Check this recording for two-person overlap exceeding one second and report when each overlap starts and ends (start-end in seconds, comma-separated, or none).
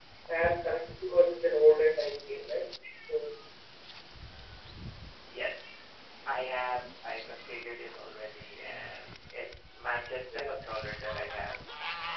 none